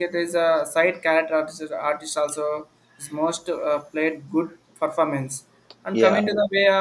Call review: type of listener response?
listening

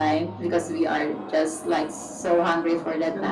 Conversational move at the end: listening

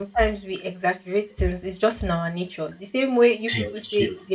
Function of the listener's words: listening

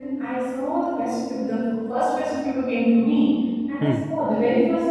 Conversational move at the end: listening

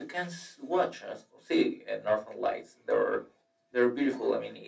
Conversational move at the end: listening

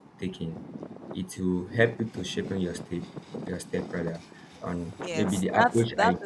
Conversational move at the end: taking over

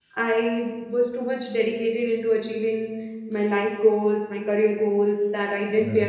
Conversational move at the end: listening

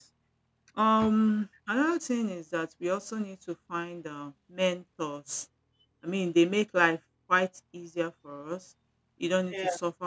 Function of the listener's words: listening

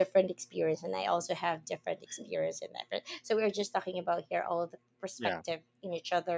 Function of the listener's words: listening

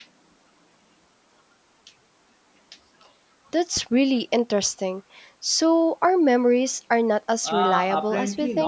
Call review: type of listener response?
taking over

